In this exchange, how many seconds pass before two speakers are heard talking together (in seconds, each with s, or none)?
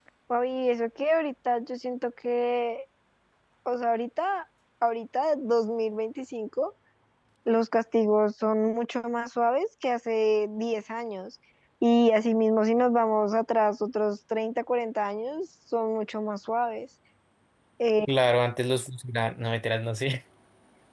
none